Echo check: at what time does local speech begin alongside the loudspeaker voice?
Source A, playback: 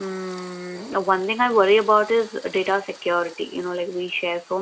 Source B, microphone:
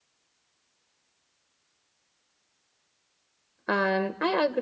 4 s

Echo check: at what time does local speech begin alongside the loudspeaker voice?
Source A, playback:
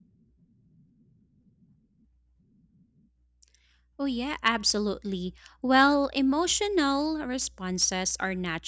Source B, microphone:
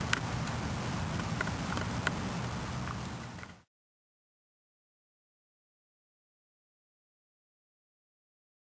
none

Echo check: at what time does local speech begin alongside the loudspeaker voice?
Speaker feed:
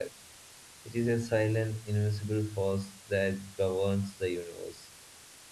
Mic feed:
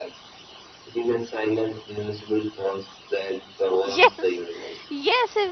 4 s

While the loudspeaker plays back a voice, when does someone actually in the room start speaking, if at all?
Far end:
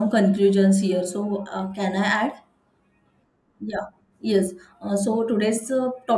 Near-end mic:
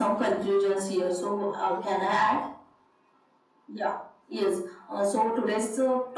1 s

